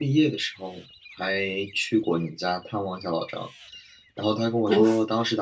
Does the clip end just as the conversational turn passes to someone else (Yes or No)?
No